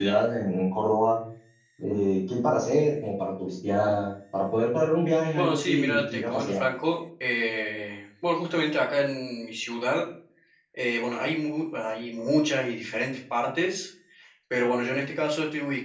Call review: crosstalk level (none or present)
present